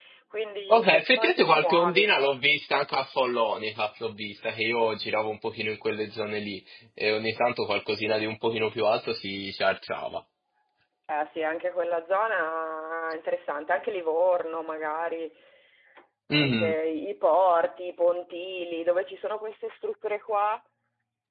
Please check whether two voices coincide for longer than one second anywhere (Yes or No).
Yes